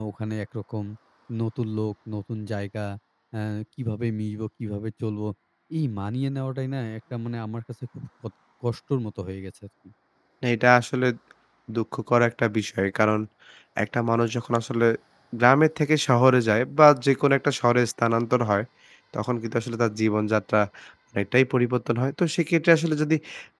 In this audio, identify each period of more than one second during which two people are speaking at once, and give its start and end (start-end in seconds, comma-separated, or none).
none